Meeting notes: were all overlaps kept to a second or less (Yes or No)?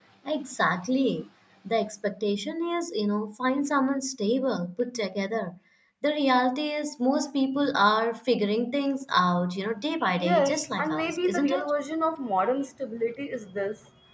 No